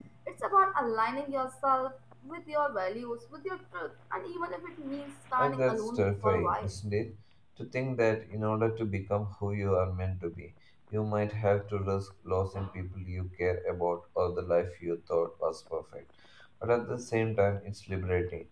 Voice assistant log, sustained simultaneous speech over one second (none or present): present